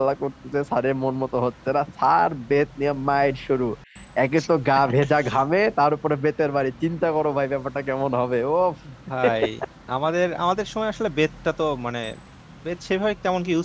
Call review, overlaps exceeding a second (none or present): none